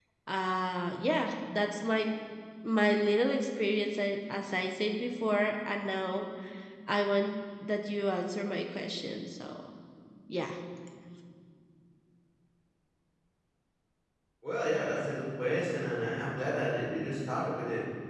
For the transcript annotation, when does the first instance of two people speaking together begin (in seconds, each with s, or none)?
none